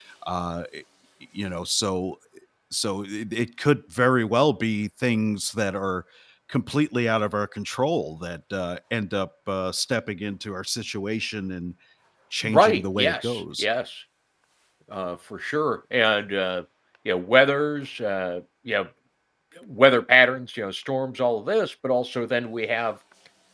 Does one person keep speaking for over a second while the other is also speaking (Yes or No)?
Yes